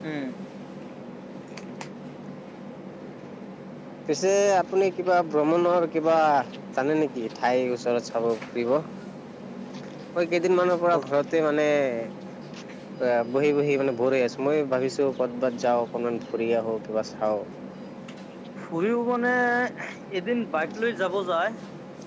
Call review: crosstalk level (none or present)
none